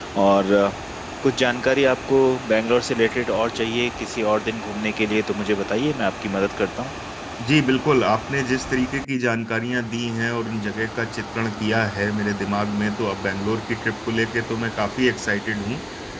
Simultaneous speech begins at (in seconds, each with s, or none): none